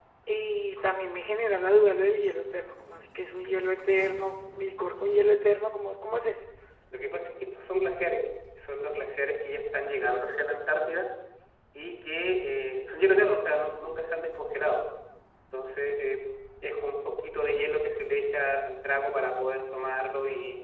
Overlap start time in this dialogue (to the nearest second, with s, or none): none